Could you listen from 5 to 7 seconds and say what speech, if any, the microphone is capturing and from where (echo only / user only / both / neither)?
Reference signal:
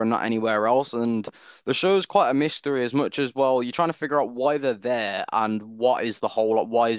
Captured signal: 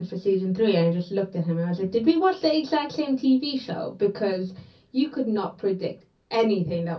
user only